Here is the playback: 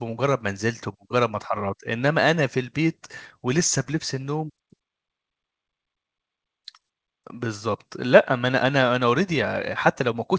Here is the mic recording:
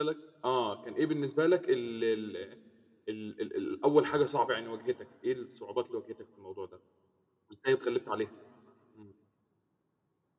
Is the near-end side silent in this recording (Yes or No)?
No